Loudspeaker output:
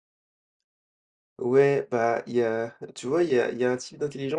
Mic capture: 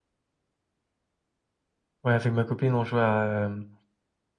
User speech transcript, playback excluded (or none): Ouais, avec ma copine, on jouait à, hem,